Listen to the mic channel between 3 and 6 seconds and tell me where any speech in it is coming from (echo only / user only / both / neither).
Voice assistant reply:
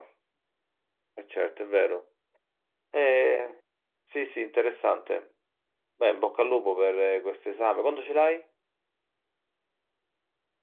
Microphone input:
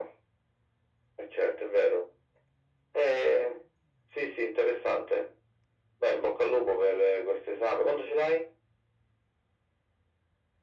echo only